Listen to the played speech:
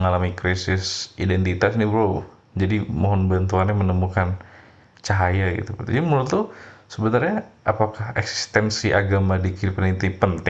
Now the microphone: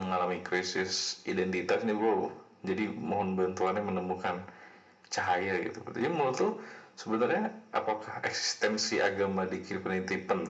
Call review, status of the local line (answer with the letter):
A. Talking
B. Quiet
B